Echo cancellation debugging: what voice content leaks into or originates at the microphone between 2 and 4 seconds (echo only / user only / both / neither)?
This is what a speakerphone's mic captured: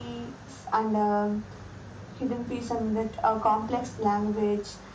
echo only